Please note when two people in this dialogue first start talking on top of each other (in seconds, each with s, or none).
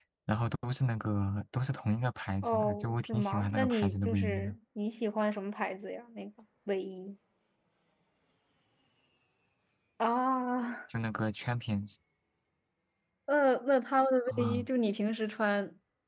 2.4 s